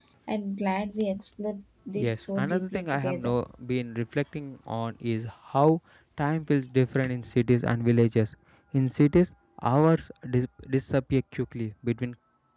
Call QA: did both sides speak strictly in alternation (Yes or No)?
No